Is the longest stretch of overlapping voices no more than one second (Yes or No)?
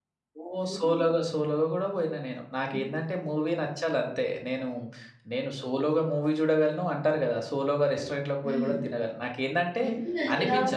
Yes